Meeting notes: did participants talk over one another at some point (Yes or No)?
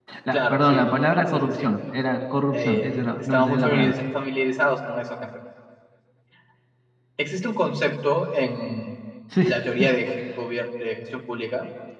Yes